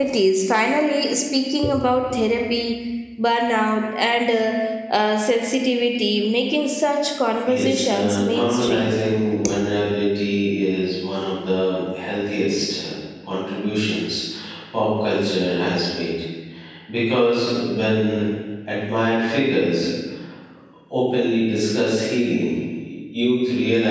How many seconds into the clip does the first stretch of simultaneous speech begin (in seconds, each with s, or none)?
7.5 s